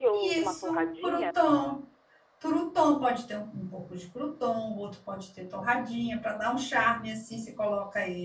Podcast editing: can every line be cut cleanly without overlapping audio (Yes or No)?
No